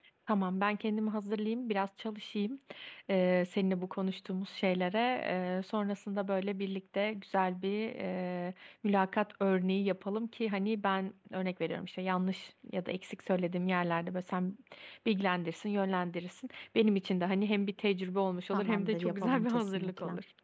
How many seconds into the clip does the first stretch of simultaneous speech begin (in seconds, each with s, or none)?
18.5 s